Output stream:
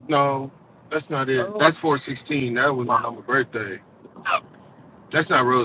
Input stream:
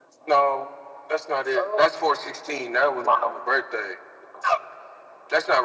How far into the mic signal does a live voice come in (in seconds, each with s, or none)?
none